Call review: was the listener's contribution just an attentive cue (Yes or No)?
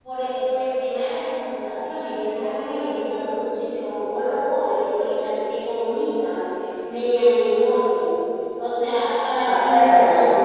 No